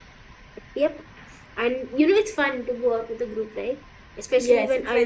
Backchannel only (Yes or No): No